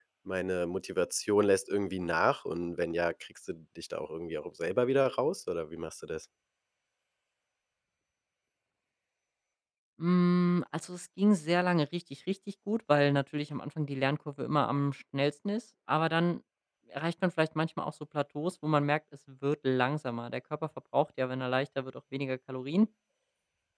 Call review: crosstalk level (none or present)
none